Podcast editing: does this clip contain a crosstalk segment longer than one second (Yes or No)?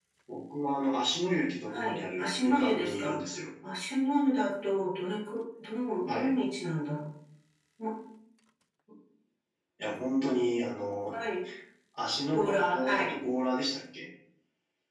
Yes